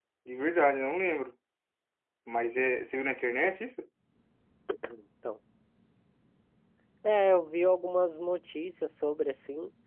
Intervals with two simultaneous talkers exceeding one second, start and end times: none

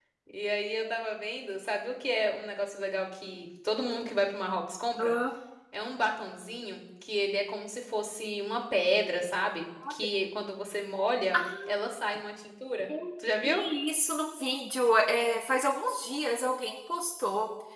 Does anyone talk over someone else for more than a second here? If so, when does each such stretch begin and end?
none

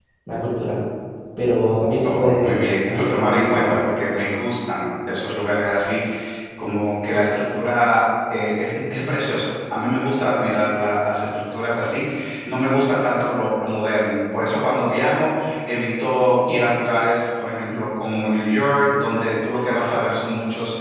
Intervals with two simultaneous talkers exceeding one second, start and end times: 2.0-3.7

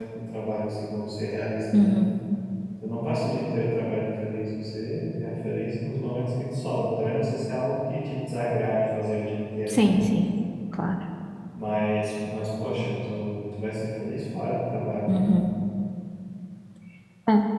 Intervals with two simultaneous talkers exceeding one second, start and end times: none

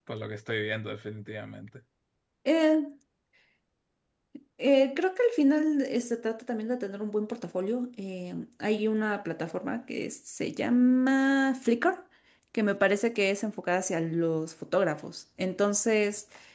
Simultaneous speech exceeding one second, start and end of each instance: none

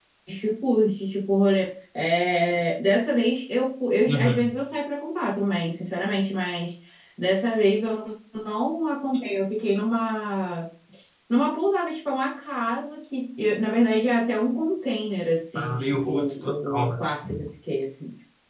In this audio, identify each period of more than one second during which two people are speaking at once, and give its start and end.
15.6-16.9

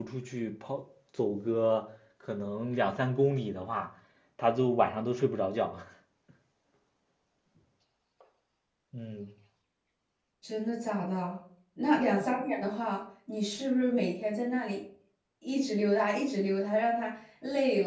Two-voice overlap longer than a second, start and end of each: none

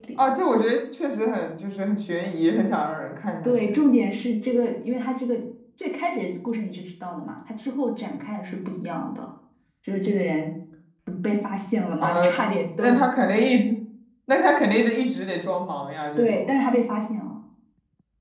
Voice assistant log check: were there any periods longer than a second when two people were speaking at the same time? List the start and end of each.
none

